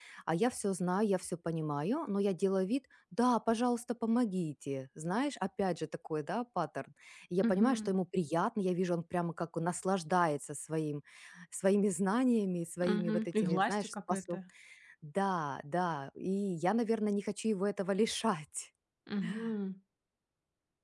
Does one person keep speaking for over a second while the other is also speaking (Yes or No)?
Yes